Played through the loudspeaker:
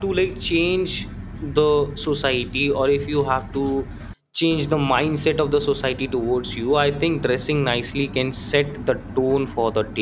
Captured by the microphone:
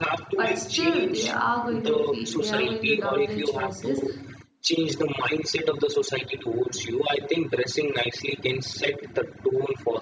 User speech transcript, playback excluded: but still they are going to feel they are going to doubt their choices

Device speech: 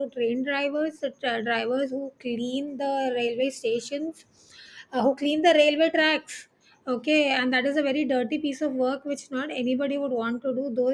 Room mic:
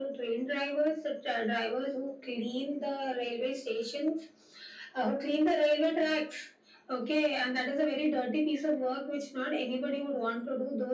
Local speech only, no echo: none

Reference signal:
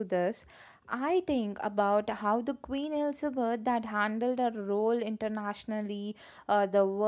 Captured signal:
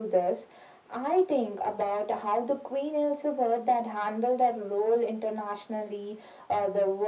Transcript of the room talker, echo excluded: none

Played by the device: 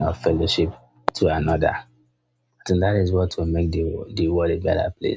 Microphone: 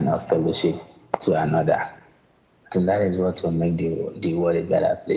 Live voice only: none

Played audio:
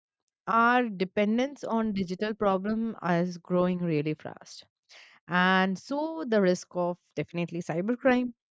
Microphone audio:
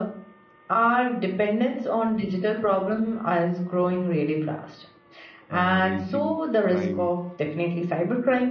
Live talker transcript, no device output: uh, raising crime

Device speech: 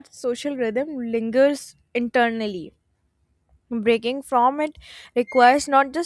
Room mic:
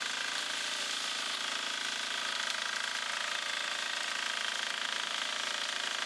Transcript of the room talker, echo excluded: none

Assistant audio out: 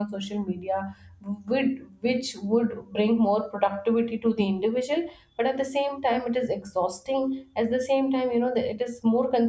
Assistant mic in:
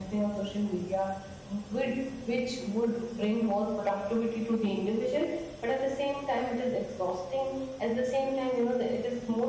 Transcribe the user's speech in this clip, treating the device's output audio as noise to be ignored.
none

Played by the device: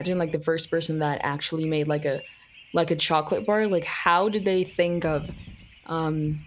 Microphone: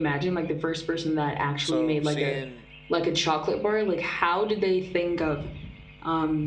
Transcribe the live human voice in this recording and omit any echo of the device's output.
So seeing,

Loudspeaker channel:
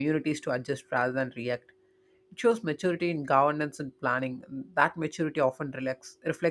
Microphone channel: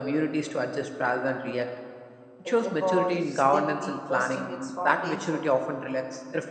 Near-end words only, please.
It evolves steadily, trusting its foundation.

